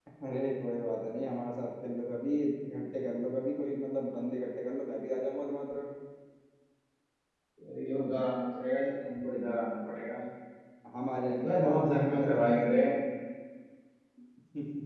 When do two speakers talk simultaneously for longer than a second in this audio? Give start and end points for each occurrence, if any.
11.4-12.8

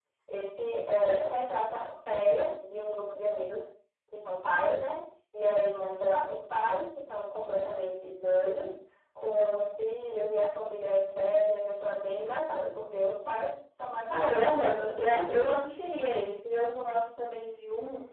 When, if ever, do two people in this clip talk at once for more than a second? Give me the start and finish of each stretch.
14.0-15.4

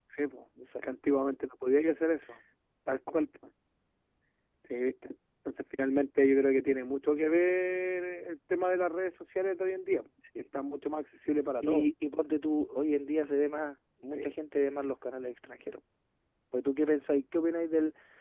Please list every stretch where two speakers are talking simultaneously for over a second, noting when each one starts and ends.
none

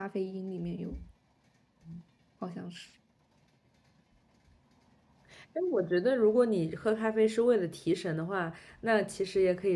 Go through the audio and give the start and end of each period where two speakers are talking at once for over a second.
none

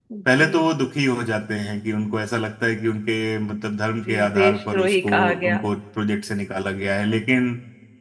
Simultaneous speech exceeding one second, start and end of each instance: 4.1-5.6

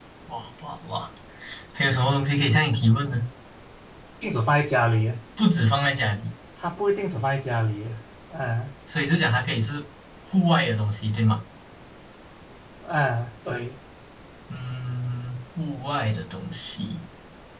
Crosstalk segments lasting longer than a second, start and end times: none

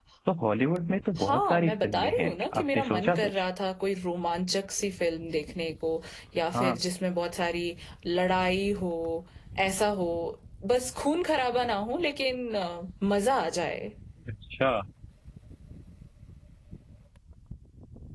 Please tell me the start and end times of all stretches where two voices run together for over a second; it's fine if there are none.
1.2-3.4

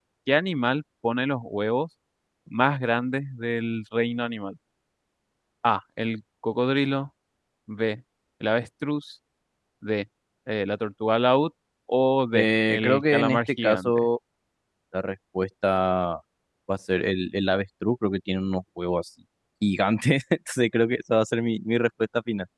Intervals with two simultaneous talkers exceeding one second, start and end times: 12.3-14.1

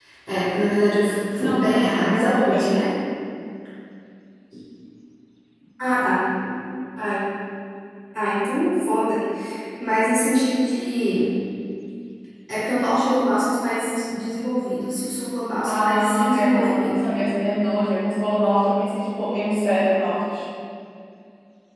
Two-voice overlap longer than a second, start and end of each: 1.4-2.8, 15.7-17.0

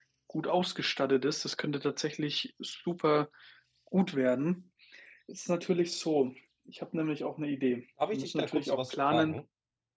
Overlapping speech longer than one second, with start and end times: 8.1-9.3

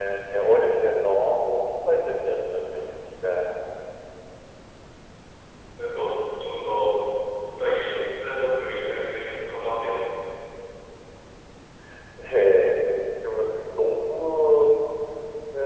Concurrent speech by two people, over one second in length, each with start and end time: none

